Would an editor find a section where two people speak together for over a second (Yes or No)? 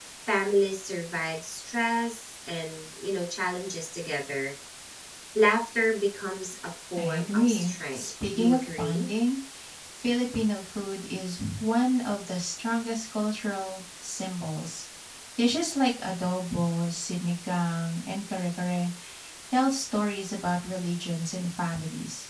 Yes